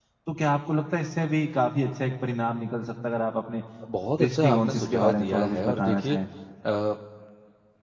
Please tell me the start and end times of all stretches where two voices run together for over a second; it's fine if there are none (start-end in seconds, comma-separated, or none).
4.2-6.2